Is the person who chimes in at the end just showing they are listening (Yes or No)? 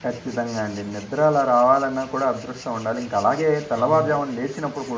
Yes